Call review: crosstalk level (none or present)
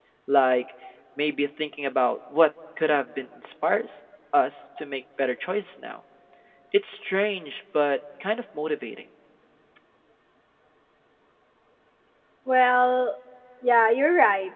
none